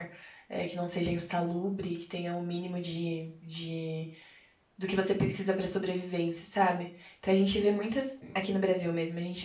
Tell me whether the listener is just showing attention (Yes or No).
Yes